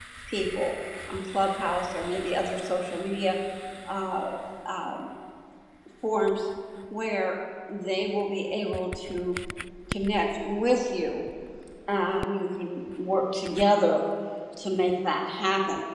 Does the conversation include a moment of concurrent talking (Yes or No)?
No